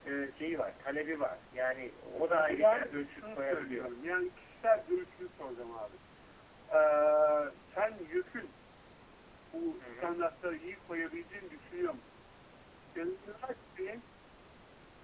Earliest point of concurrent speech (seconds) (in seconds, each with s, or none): 2.1 s